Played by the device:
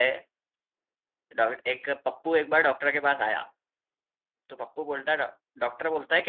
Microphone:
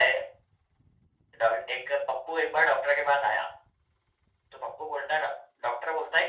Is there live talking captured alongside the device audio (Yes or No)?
No